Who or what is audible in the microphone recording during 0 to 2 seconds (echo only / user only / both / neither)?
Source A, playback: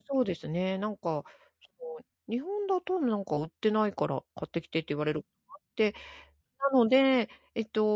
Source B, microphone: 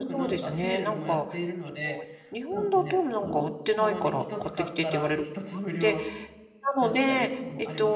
both